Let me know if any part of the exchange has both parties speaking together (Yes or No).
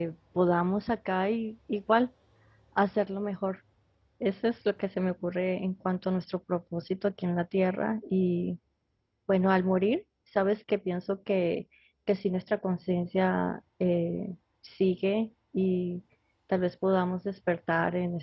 No